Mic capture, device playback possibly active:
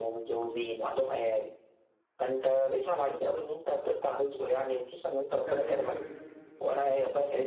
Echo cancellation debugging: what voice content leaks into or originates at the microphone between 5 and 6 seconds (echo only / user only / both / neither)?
both